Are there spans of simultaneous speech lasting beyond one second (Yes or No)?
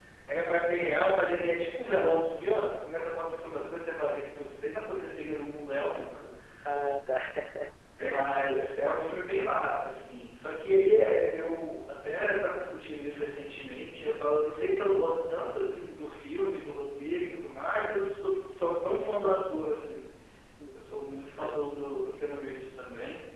No